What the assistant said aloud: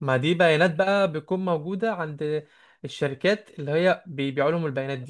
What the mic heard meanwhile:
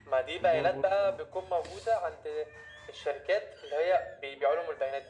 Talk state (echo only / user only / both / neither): both